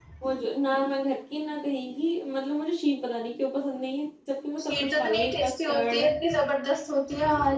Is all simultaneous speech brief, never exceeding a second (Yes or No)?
No